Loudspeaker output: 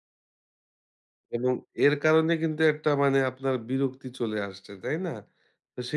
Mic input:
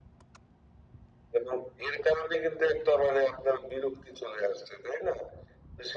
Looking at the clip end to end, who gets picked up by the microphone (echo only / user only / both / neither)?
echo only